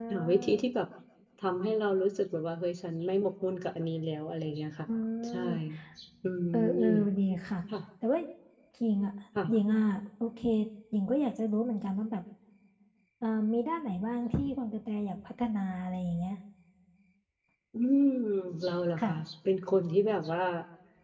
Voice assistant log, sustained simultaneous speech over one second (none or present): none